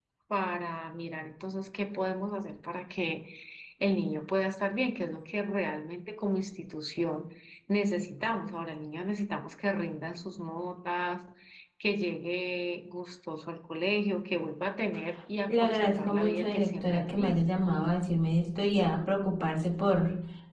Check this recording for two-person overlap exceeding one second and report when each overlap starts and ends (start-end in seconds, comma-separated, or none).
15.5-17.4